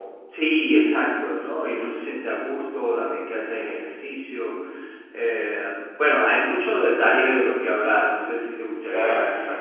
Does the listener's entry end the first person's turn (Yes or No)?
Yes